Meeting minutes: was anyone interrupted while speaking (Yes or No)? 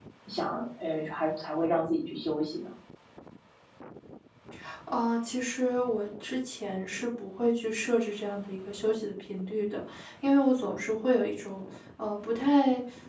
No